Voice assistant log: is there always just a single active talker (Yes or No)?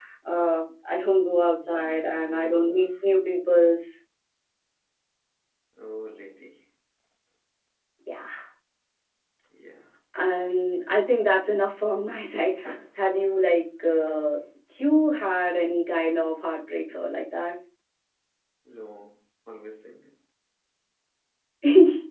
No